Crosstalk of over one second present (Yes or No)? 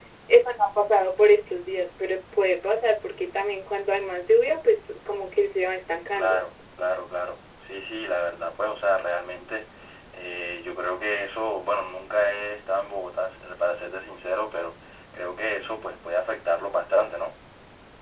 No